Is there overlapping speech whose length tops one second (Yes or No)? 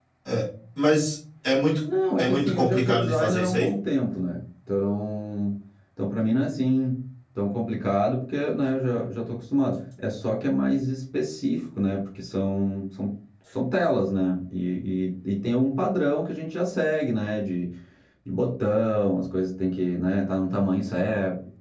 Yes